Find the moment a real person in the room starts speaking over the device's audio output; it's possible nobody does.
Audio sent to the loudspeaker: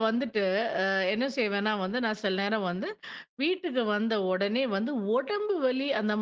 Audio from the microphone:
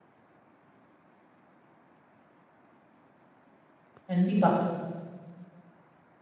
4 s

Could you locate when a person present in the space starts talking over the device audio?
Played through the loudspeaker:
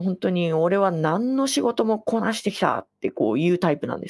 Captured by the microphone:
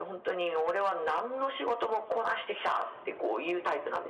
none

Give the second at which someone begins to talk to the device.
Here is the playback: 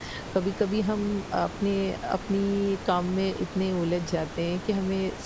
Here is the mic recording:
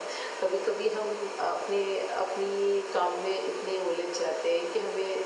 none

